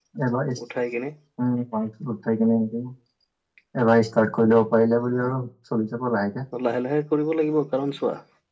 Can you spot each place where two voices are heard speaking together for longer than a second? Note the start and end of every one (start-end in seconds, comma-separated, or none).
none